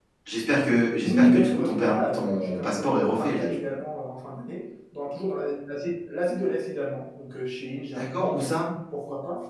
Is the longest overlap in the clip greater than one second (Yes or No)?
Yes